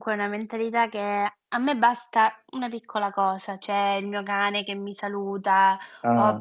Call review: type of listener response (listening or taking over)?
listening